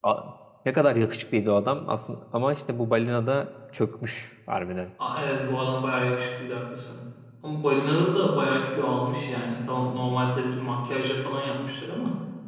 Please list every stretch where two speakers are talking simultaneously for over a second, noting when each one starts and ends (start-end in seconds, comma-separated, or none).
none